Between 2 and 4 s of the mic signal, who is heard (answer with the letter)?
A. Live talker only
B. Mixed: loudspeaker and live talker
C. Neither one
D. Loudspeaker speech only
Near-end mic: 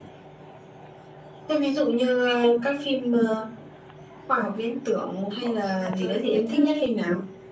D